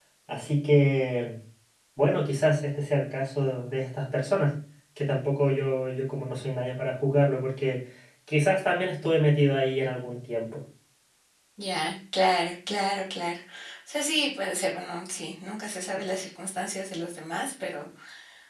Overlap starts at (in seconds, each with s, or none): none